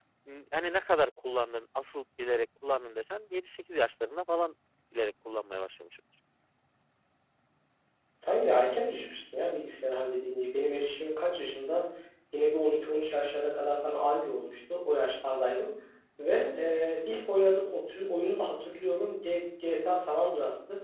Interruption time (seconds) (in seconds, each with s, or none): none